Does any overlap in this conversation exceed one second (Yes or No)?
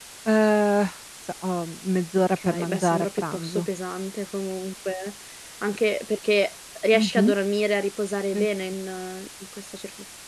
Yes